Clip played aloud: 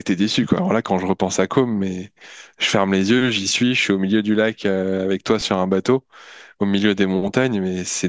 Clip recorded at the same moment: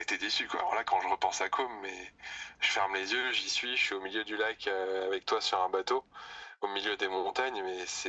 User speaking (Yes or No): No